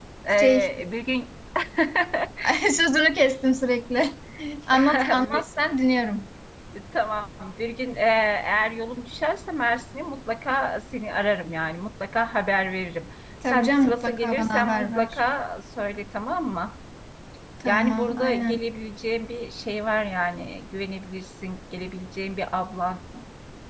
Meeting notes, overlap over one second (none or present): present